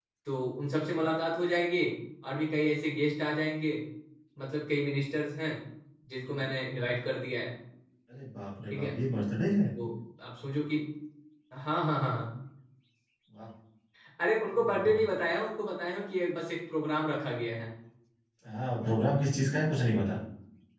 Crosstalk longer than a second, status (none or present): none